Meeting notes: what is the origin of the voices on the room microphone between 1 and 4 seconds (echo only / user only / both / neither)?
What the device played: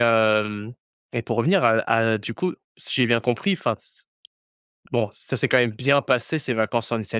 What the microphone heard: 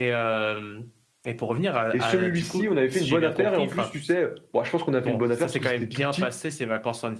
both